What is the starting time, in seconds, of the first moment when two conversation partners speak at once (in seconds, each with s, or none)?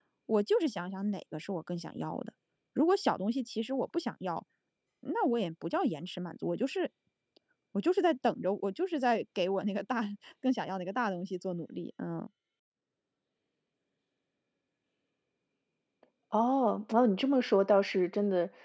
none